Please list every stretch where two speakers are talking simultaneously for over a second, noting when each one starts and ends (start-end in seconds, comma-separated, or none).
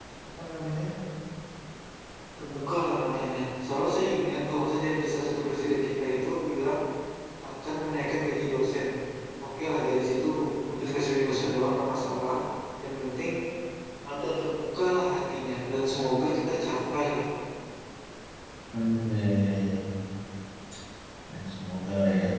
none